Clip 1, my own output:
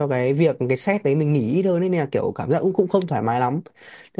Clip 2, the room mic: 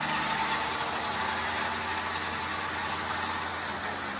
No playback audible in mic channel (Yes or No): Yes